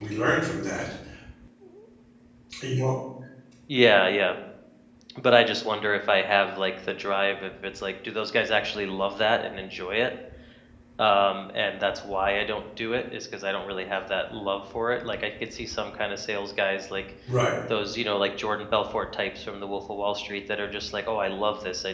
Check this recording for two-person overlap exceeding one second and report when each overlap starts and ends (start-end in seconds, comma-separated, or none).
none